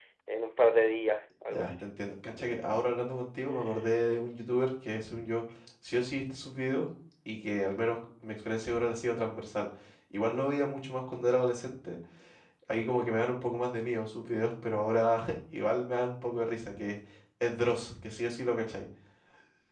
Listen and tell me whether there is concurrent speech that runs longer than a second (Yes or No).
No